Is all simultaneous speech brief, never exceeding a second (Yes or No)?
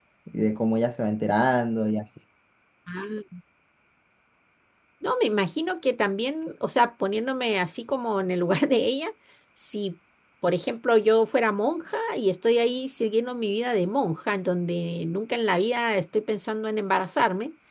Yes